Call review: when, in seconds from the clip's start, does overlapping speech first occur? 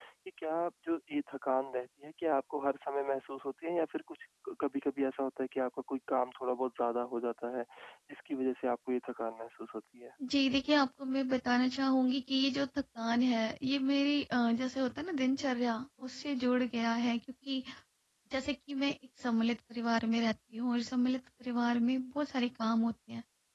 none

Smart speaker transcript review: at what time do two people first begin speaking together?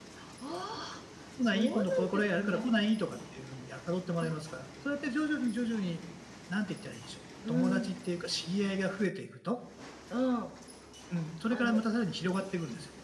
1.4 s

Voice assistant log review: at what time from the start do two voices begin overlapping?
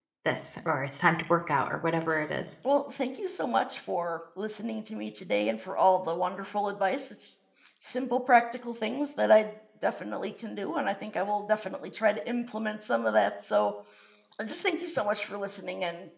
none

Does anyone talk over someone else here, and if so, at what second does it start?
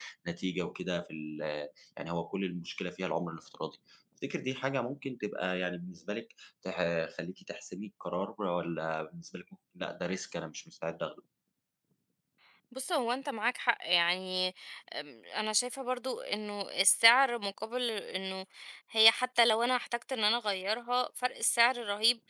none

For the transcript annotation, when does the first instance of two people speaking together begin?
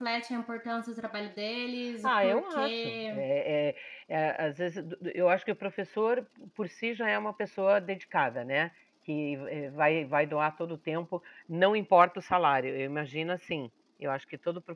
2.0 s

